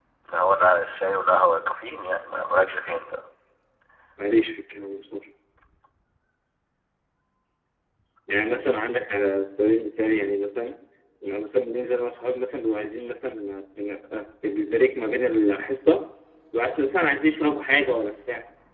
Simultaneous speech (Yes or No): No